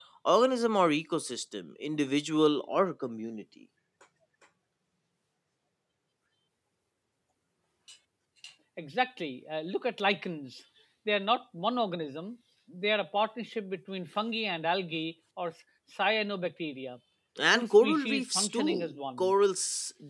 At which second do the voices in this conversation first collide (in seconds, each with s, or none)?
17.5 s